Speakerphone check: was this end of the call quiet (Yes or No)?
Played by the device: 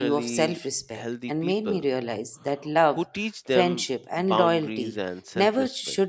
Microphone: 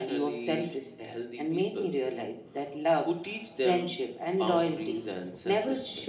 Yes